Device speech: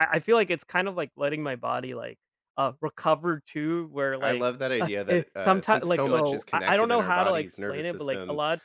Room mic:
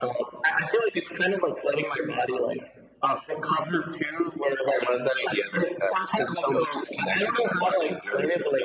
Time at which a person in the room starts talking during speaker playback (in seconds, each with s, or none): none